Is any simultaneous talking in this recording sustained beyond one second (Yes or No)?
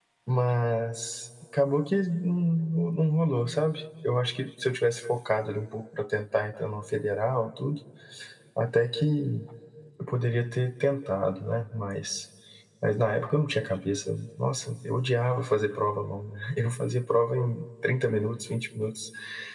No